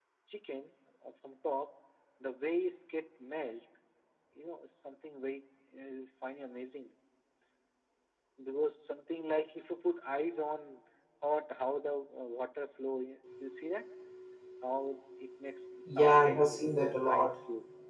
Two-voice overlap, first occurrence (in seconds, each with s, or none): 15.8 s